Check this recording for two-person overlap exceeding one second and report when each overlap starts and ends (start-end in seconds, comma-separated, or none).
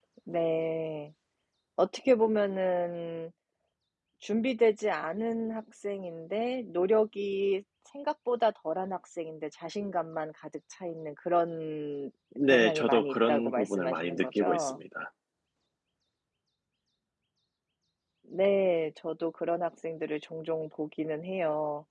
12.5-14.8